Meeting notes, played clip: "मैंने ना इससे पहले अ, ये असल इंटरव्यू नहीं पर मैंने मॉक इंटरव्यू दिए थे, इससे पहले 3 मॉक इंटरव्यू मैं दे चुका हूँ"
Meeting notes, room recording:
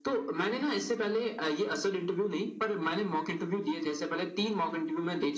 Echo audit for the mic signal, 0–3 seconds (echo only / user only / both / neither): echo only